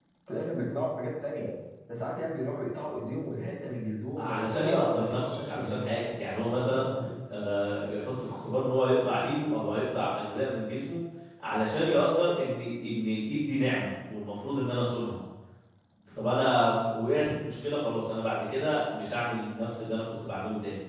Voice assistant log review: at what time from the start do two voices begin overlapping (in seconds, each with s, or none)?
4.2 s